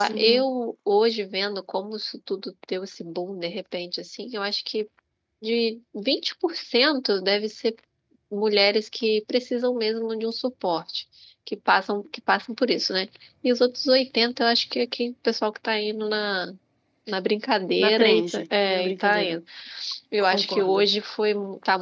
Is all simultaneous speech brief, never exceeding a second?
No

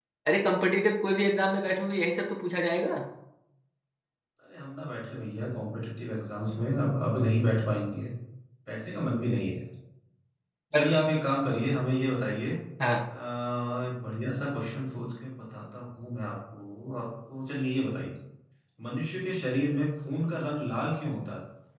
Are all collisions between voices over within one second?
Yes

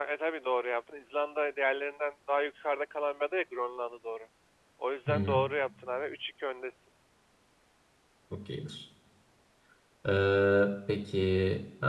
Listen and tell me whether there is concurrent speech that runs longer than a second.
No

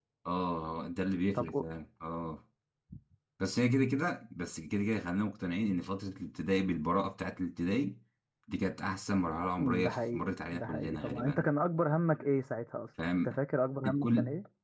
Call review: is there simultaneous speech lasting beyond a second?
Yes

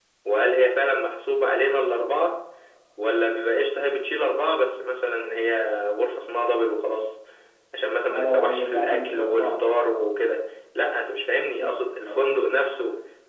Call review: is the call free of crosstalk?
No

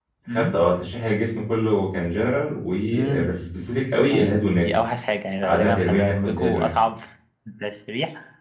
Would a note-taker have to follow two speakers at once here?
Yes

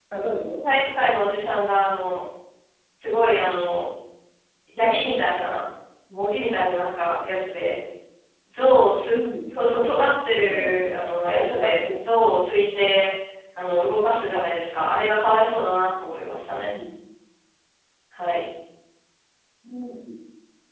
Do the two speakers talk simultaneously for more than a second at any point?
Yes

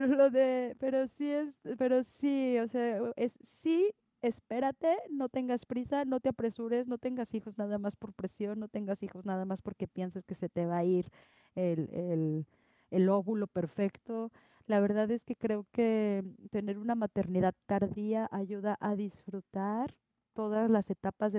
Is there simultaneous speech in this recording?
No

